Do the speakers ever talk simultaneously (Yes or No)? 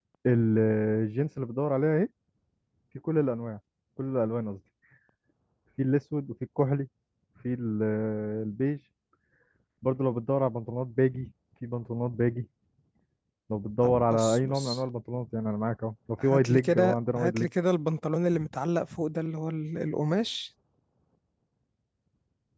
Yes